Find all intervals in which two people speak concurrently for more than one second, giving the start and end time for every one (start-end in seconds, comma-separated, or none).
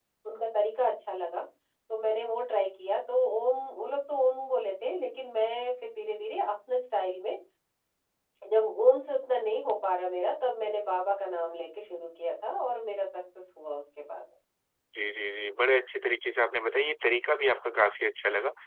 none